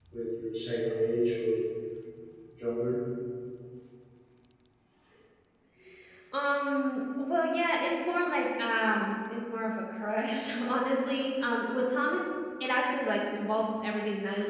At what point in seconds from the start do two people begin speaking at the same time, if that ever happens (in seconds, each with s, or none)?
none